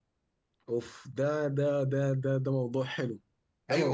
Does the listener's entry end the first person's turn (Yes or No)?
Yes